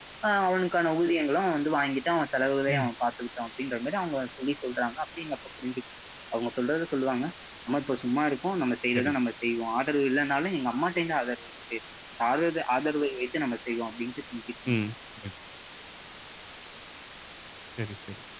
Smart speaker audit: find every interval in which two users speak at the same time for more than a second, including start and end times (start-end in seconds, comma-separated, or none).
none